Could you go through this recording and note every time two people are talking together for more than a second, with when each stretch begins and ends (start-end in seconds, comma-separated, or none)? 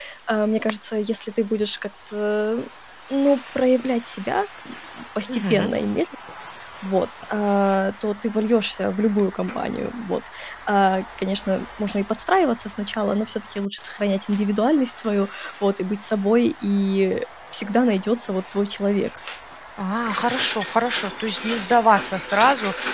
none